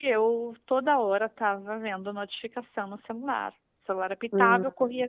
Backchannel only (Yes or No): Yes